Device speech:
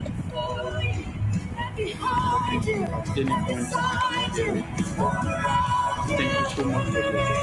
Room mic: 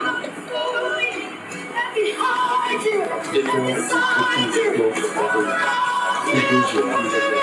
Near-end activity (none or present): present